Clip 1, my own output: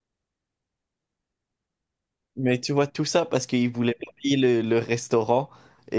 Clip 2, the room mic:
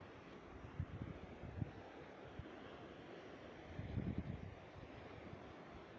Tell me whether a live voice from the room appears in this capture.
No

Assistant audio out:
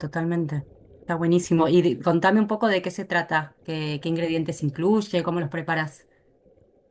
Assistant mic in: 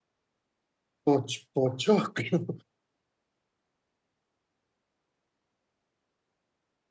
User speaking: Yes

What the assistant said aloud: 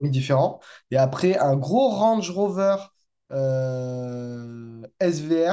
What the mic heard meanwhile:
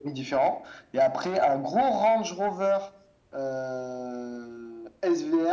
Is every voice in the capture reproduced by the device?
Yes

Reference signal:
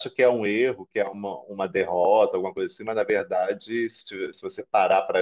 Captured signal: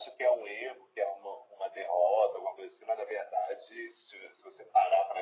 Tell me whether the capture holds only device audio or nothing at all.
Yes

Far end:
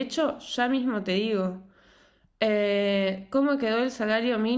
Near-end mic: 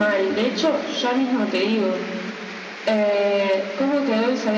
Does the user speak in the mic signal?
No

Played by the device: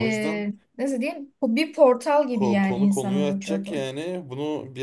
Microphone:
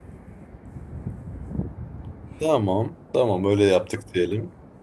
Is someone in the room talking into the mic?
Yes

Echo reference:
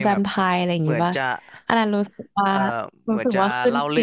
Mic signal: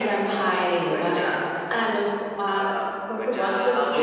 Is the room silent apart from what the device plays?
Yes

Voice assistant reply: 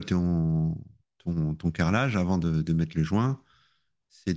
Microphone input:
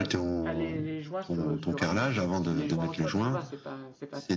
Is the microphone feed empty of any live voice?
No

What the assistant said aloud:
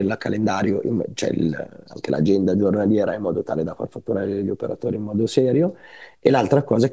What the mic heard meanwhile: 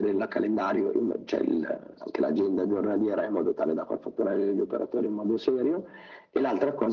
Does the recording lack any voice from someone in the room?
Yes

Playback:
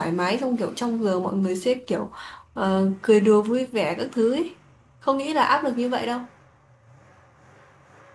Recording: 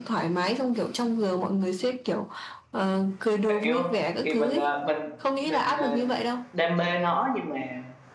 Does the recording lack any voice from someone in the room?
No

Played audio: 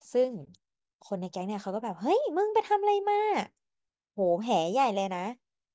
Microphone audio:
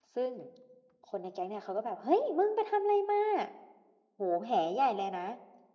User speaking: No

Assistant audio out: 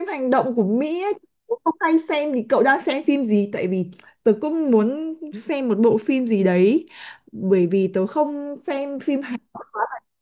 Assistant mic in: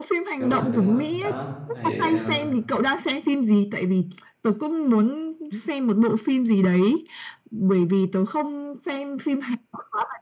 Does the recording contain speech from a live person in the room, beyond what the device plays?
Yes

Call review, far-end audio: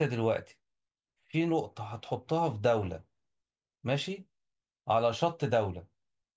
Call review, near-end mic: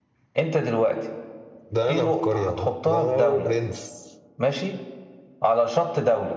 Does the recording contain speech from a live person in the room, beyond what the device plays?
Yes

